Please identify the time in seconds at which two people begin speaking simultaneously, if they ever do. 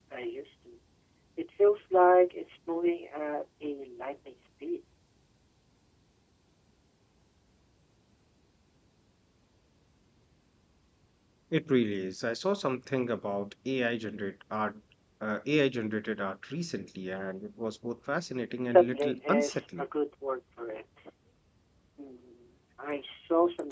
19 s

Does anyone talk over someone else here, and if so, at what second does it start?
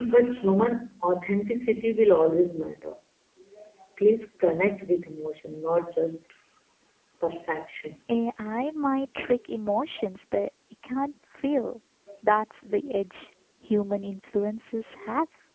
none

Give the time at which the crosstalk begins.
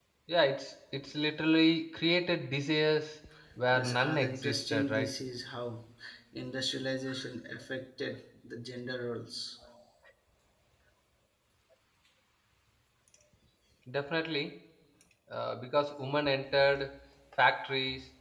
4 s

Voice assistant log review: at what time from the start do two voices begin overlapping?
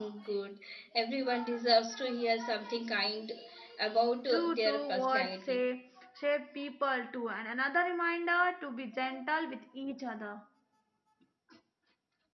4 s

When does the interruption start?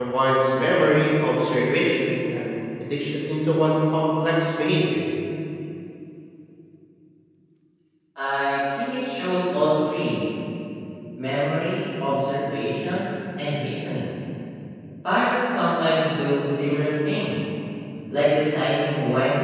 none

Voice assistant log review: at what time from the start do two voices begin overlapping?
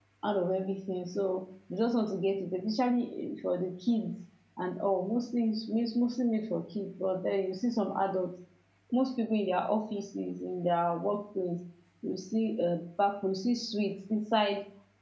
none

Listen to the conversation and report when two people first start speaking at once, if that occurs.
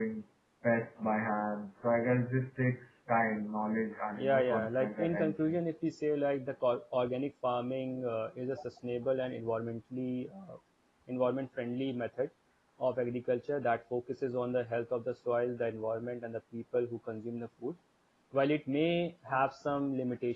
4 s

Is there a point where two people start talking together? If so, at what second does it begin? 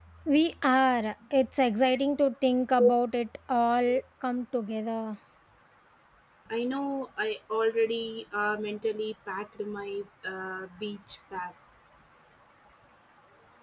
none

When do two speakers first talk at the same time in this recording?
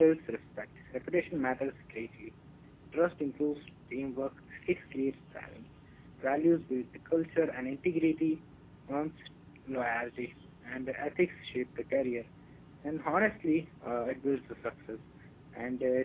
none

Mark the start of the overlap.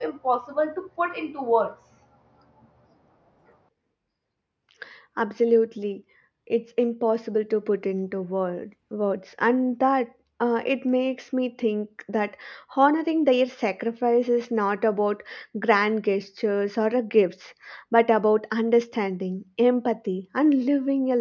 none

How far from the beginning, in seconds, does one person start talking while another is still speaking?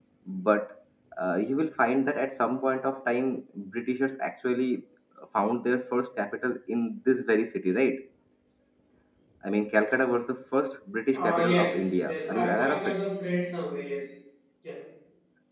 11 s

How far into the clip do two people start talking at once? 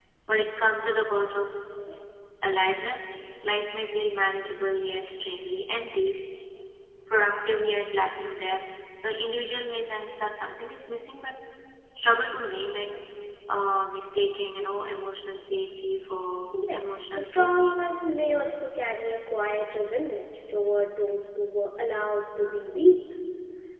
17 s

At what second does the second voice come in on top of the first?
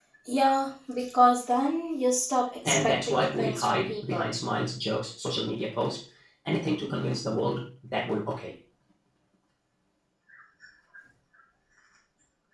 3 s

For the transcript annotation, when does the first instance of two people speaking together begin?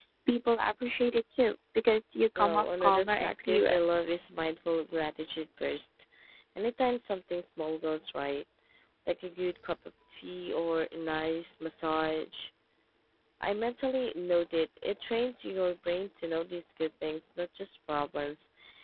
2 s

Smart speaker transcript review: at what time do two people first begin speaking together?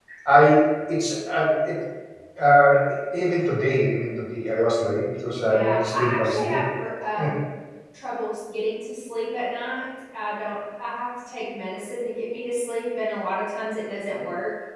5 s

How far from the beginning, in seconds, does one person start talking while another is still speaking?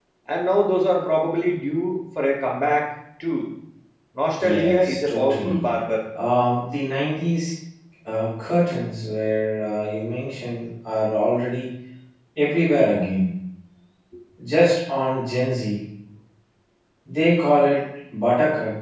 4 s

